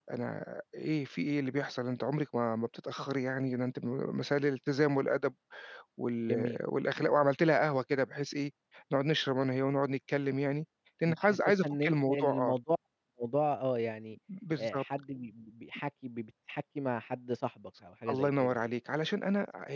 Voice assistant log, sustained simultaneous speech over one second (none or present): present